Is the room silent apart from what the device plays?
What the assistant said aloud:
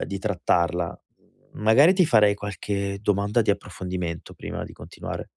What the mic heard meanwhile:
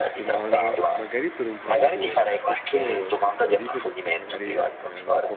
No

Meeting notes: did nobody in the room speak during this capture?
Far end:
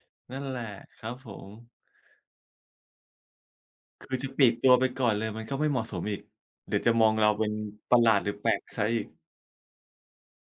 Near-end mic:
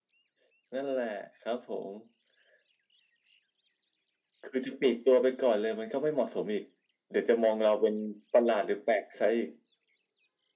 Yes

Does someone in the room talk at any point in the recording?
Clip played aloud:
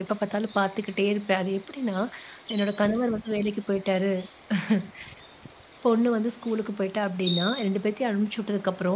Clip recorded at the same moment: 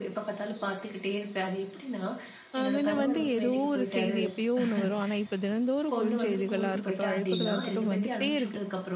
Yes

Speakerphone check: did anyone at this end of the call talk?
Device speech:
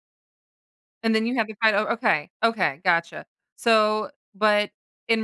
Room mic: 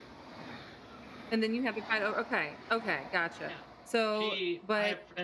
Yes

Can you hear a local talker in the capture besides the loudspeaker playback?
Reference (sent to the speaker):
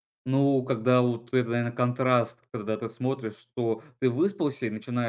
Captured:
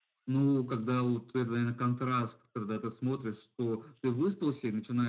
No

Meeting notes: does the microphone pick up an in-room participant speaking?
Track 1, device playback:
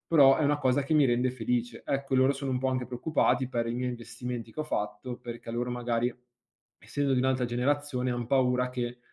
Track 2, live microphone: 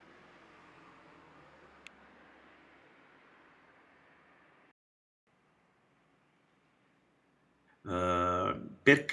Yes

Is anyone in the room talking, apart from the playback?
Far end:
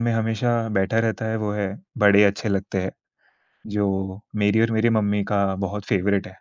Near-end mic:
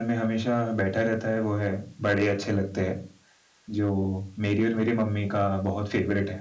No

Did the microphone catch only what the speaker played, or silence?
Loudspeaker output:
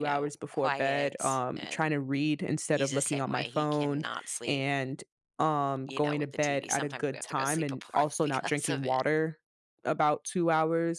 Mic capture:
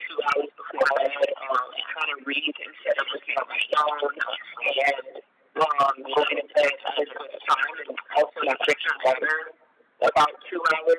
Yes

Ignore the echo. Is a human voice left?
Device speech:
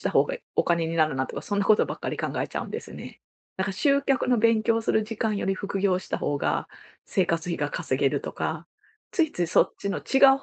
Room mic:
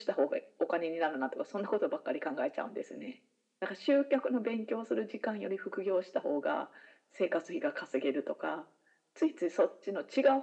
No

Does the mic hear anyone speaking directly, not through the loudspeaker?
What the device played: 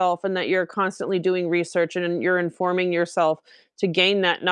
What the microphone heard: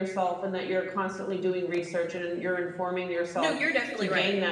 Yes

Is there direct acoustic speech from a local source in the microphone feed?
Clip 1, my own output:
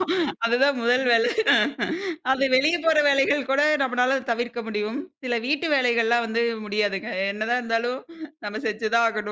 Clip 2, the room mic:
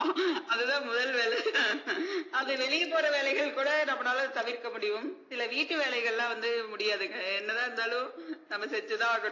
No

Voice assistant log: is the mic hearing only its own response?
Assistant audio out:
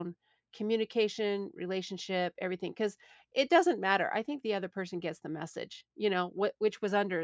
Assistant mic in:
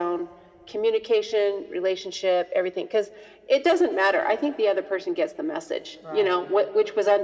No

